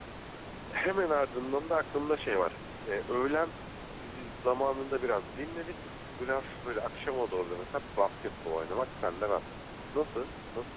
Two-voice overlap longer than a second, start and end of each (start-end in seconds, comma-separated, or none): none